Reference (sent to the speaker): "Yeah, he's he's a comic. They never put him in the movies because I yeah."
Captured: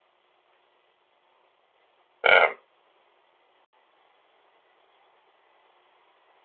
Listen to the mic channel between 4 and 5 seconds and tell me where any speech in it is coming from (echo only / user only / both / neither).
neither